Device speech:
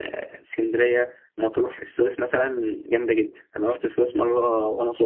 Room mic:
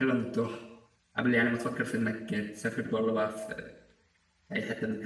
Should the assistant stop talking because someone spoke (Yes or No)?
Yes